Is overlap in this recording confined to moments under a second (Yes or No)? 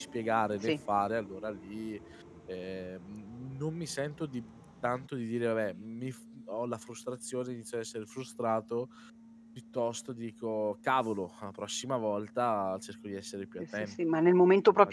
Yes